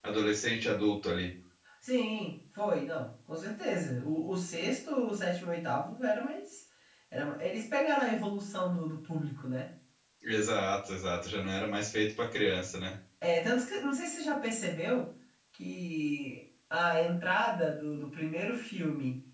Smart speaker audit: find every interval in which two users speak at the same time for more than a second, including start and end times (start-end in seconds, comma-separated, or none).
none